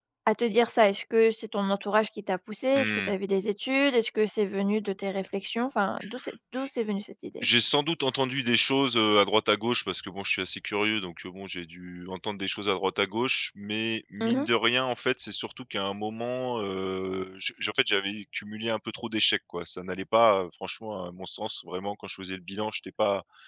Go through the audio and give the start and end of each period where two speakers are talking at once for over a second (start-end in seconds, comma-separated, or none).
none